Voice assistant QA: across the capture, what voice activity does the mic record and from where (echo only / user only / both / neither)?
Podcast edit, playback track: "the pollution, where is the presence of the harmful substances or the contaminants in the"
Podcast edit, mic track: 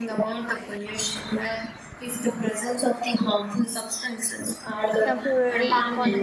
both